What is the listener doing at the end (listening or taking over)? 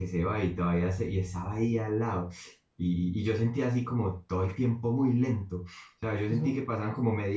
listening